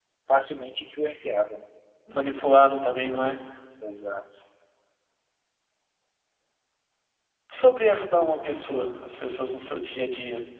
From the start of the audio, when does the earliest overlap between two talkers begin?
none

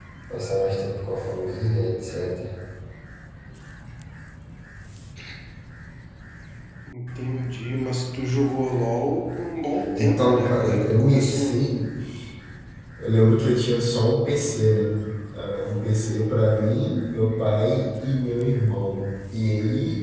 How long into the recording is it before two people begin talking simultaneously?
9.9 s

